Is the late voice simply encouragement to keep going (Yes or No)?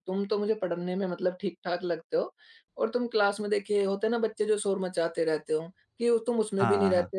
Yes